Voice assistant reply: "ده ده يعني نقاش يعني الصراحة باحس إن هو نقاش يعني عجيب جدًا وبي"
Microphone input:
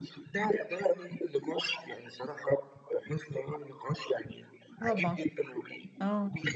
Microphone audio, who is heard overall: both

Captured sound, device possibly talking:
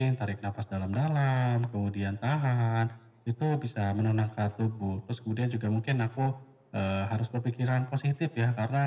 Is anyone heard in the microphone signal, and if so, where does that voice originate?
echo only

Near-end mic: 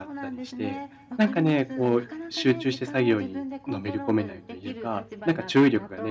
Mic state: both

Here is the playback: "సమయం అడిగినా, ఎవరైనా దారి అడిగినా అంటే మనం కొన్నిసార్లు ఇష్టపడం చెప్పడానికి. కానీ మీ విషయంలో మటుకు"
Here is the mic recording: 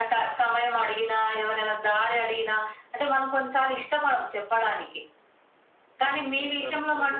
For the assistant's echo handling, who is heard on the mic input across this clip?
both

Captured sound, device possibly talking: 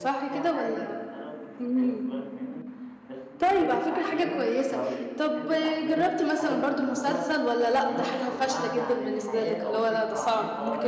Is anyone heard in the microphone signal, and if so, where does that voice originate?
both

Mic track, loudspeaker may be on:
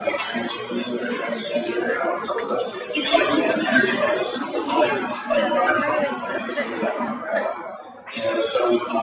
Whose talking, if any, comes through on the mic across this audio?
both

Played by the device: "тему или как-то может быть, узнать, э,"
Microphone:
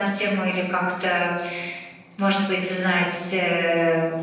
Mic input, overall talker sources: echo only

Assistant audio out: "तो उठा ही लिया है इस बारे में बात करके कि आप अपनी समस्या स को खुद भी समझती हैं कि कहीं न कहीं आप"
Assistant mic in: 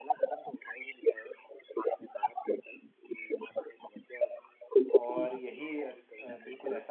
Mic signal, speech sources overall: both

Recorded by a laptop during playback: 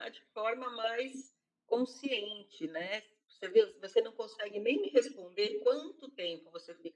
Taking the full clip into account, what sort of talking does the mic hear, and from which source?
echo only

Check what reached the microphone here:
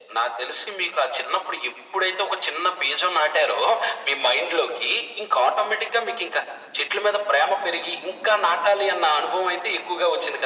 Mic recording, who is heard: echo only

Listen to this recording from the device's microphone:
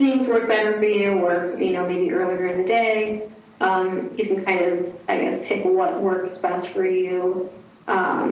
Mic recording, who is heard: echo only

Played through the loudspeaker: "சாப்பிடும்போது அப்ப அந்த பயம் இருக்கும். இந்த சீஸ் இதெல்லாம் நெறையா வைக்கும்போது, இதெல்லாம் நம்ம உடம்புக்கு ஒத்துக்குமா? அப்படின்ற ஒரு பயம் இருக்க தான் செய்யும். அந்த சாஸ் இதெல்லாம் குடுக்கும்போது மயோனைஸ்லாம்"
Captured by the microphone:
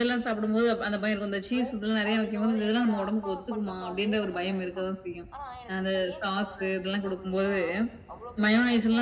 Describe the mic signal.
both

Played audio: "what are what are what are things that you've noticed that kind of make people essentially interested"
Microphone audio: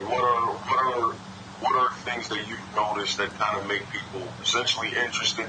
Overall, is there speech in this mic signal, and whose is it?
echo only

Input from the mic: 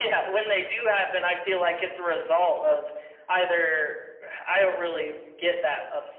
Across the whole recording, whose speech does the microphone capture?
echo only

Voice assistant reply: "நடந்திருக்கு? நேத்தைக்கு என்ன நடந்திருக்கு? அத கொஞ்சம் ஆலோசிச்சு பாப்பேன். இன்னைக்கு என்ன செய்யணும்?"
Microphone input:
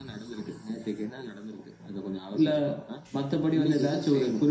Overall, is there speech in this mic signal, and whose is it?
both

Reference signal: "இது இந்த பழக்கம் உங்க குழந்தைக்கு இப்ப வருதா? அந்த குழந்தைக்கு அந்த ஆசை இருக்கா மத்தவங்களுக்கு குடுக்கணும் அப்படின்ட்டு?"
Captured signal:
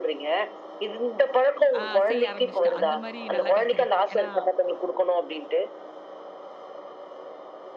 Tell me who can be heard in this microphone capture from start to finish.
both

